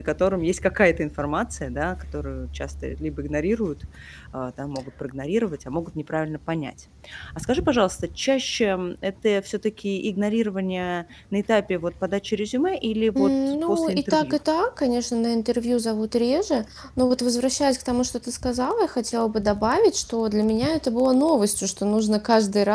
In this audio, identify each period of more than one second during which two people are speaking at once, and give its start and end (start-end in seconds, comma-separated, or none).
13.1-14.4